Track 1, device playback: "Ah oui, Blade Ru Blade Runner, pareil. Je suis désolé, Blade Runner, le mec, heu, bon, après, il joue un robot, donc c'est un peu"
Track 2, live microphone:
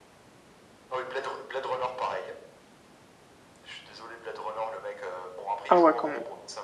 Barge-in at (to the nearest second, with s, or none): 6 s